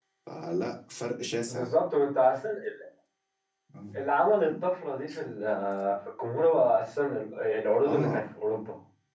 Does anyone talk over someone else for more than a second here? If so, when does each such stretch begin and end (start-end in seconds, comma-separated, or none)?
none